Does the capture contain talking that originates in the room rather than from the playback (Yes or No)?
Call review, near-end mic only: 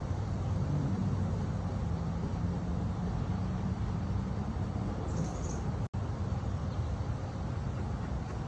No